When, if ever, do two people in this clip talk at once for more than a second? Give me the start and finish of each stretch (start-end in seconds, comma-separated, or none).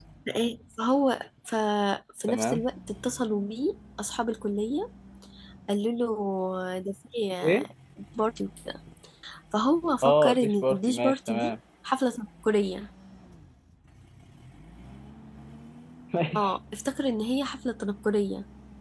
10.0-11.5